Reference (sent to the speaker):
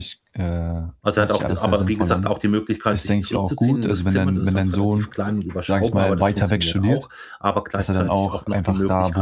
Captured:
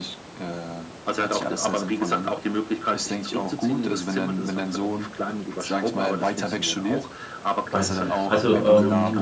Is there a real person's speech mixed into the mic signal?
Yes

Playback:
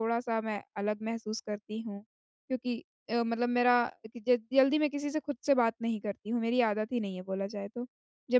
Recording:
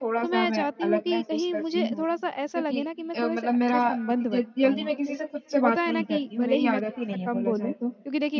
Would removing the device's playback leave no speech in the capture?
No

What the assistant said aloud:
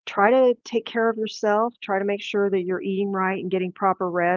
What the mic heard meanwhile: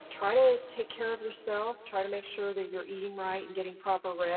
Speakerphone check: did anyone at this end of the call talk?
No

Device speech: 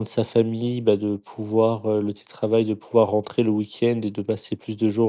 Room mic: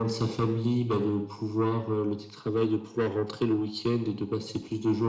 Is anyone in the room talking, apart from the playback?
No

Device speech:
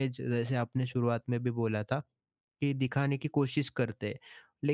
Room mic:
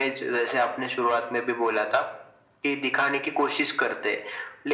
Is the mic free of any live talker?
Yes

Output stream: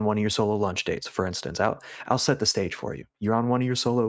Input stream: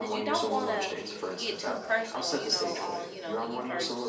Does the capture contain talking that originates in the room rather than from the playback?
Yes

